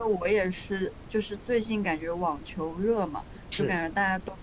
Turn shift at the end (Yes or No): No